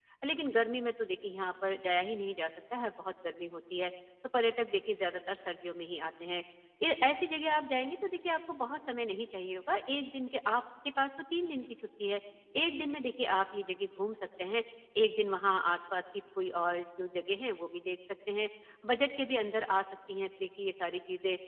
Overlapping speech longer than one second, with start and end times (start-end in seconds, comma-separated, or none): none